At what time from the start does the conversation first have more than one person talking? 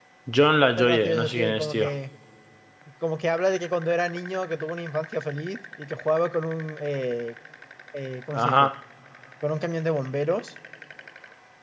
0.6 s

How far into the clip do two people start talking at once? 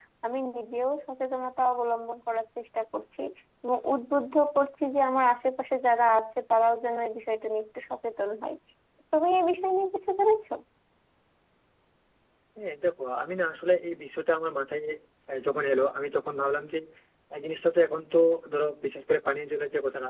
none

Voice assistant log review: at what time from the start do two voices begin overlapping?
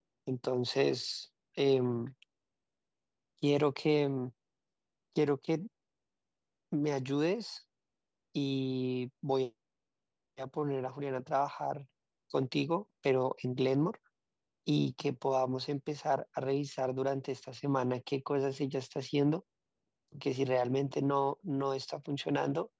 none

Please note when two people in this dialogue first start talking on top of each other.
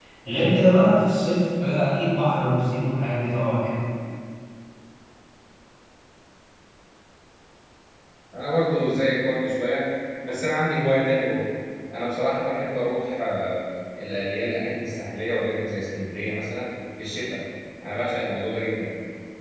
none

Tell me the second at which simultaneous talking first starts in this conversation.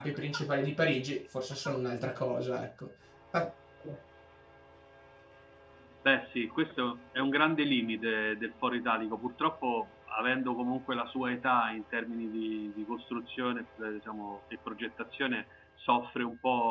none

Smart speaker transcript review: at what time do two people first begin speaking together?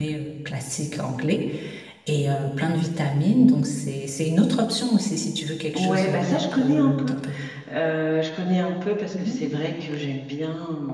5.7 s

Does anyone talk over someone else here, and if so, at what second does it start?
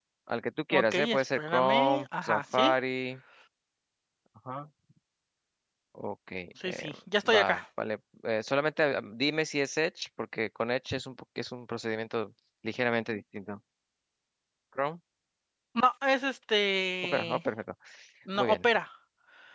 0.7 s

